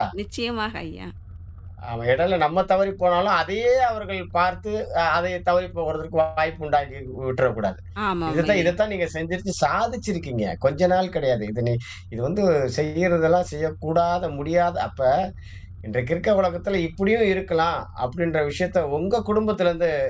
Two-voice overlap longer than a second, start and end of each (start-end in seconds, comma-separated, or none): none